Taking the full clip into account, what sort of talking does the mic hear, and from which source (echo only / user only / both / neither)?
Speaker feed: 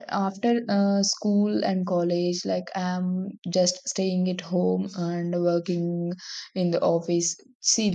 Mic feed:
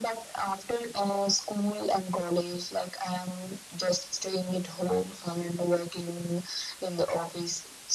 echo only